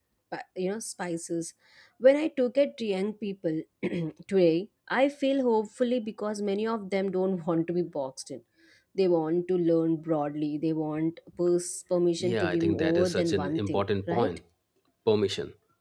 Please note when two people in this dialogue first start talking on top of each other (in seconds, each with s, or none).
12.2 s